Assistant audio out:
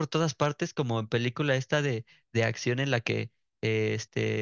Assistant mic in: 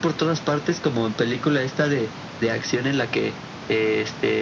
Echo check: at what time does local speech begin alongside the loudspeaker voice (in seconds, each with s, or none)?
none